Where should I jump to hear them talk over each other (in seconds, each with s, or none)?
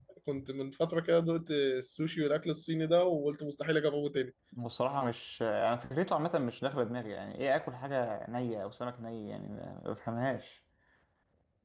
none